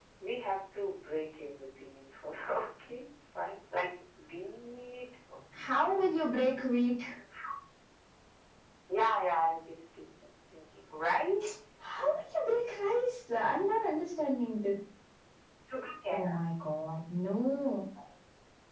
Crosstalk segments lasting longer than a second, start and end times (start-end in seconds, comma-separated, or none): none